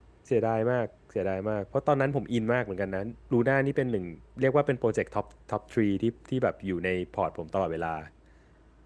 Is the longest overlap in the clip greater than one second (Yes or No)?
No